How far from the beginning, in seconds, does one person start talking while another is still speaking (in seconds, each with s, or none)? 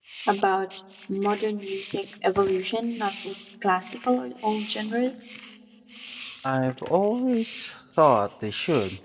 none